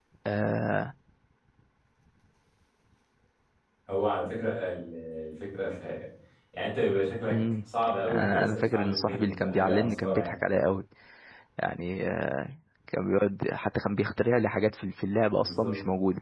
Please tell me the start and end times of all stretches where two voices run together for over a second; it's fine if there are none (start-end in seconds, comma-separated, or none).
8.1-10.3